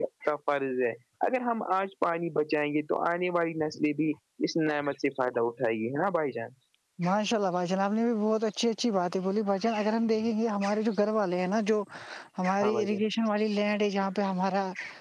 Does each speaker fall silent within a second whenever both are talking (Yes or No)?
Yes